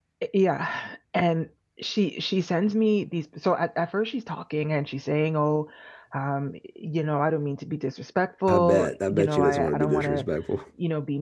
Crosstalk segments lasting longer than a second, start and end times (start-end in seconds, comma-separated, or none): 8.5-10.2